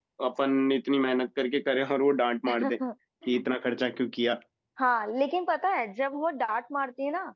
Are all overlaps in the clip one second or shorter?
Yes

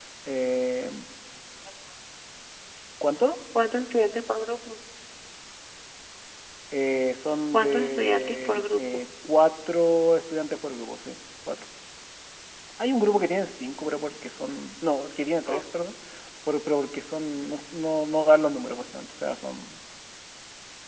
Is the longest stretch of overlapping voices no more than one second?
No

